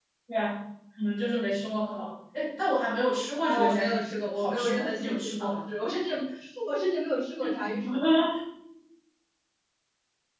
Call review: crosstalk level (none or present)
present